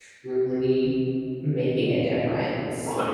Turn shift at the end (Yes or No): Yes